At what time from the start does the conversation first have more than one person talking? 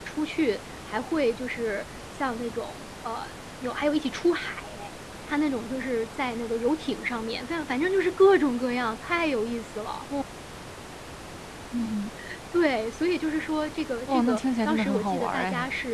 14.1 s

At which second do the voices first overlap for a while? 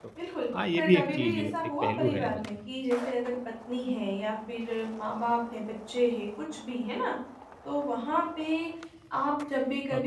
0.8 s

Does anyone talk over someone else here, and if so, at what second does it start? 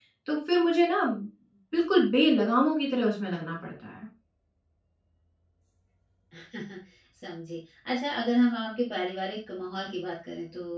none

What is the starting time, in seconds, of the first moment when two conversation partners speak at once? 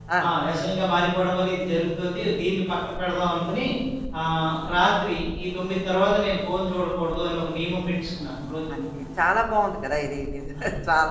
none

